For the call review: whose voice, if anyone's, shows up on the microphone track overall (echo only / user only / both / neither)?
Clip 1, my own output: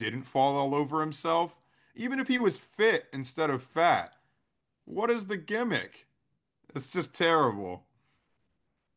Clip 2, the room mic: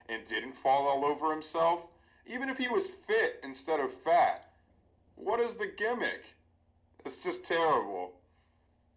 echo only